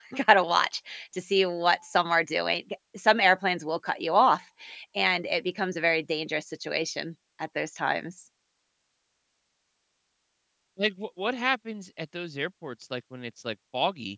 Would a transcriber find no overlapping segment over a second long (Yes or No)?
Yes